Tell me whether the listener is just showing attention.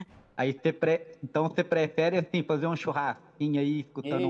No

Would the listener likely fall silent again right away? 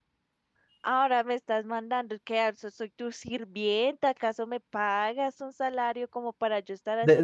No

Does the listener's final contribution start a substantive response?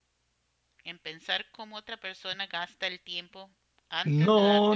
Yes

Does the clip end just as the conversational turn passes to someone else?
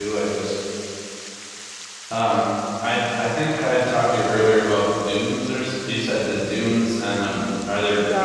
Yes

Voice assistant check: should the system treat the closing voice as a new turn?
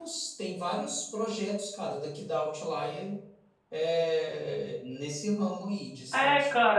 Yes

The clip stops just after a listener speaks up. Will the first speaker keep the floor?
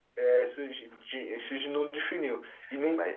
Yes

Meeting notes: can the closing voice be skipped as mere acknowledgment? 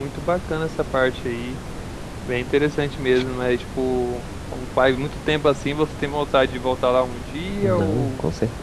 No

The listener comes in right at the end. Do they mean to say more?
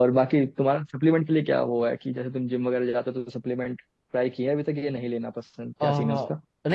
Yes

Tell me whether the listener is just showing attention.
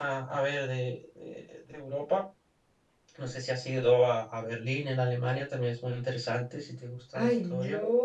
No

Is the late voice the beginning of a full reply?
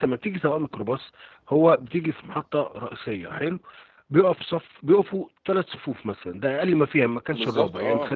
No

